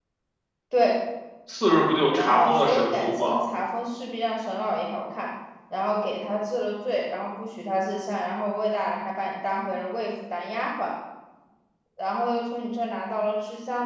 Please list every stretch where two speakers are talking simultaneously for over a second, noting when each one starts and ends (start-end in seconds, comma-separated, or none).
2.1-3.4